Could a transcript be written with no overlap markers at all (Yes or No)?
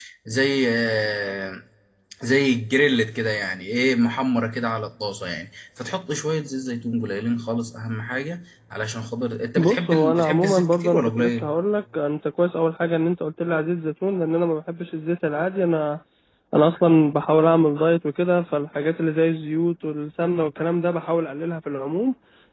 No